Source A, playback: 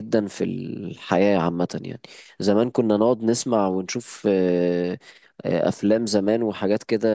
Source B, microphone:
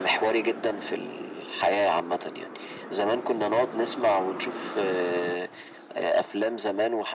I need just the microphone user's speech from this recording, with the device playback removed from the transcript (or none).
none